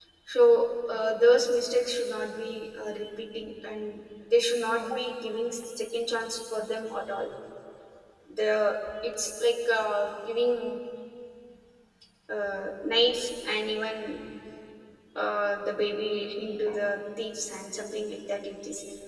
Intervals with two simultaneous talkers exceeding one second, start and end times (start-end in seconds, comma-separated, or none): none